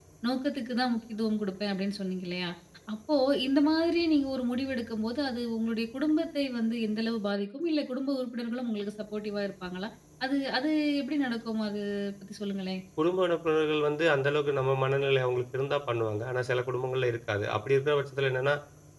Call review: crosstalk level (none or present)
none